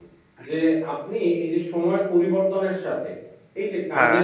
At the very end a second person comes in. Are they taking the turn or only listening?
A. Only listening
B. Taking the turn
A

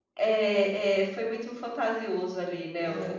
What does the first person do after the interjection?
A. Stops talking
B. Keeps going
A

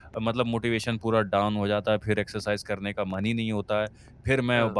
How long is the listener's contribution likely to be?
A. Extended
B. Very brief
B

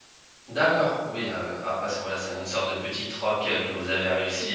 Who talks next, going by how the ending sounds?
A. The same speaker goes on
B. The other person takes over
B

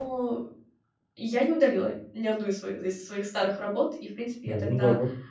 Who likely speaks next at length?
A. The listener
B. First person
B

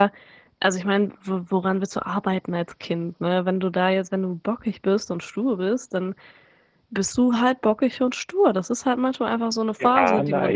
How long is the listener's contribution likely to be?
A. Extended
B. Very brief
A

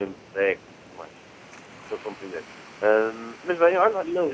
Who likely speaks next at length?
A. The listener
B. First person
A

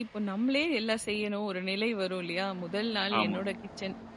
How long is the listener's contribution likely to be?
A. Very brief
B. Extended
A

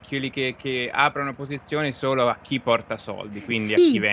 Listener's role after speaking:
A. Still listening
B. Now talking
B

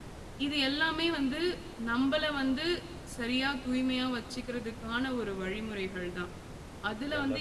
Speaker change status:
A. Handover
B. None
B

